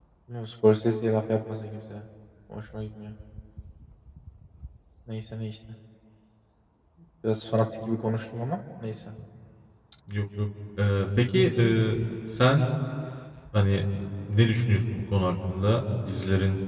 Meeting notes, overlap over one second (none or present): none